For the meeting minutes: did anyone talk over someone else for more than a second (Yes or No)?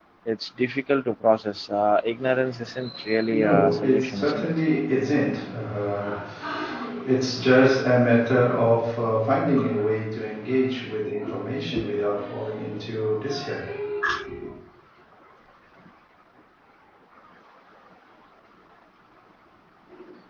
Yes